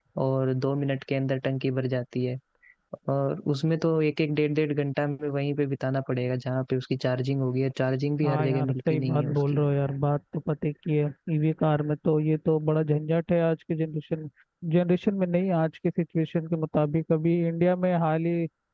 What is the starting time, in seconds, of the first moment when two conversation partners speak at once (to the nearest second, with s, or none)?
8 s